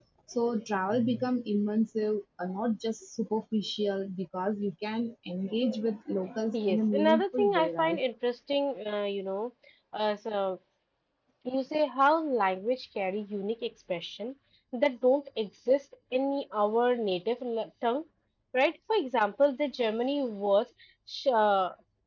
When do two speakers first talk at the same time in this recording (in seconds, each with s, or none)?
6.5 s